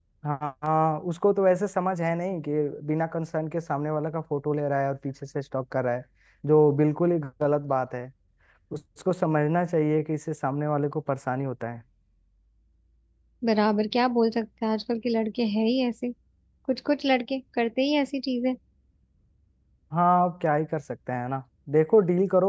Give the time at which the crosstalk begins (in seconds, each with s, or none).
none